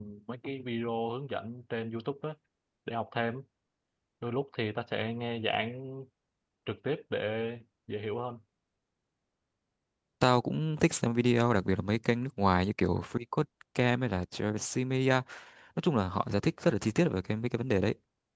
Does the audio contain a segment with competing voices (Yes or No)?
No